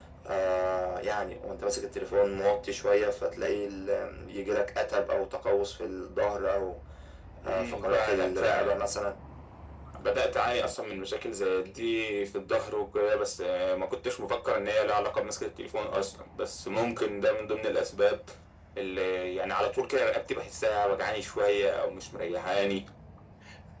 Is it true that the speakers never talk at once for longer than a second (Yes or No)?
No